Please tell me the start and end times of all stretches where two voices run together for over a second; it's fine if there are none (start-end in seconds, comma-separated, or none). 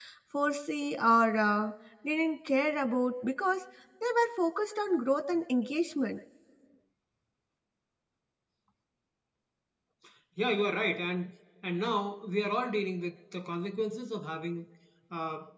none